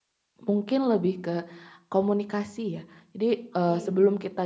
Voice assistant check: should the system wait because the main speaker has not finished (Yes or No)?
Yes